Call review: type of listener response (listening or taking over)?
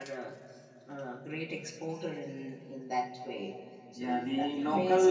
taking over